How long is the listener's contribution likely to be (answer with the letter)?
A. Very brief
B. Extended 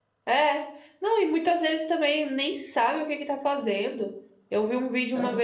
A